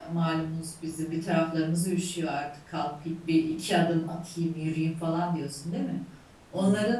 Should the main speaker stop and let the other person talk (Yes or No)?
No